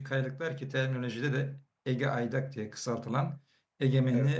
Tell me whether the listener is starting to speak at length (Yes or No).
No